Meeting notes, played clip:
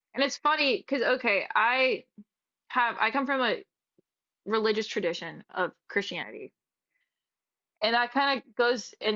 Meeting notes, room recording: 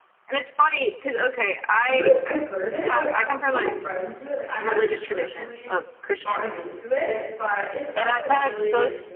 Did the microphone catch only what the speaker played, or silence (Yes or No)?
No